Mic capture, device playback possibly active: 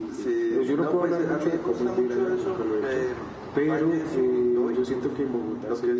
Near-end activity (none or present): present